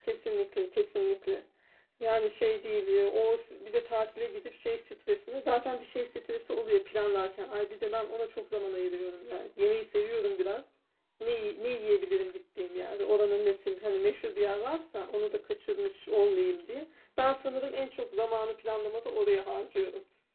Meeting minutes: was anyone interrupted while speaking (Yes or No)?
No